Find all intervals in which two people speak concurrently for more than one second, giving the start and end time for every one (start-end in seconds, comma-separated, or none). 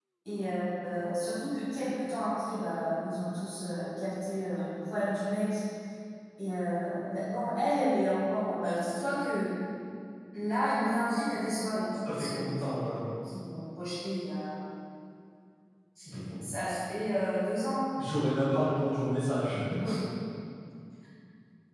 none